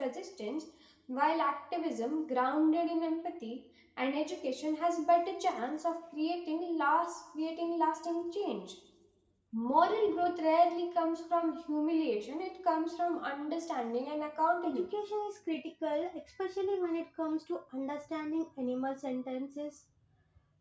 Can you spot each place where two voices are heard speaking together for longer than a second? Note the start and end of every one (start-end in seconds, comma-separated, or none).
none